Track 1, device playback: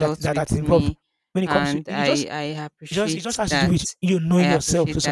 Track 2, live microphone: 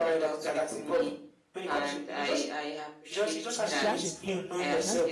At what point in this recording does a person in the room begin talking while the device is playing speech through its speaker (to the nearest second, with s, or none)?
4 s